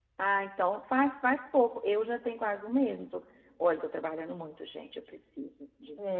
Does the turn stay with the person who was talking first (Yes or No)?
No